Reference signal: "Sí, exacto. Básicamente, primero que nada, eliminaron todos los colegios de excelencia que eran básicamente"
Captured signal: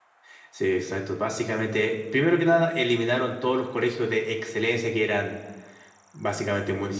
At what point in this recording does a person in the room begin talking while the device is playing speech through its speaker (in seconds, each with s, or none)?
none